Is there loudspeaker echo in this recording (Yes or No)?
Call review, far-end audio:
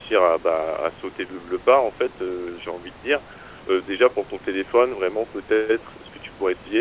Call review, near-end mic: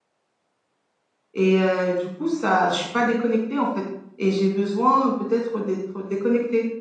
No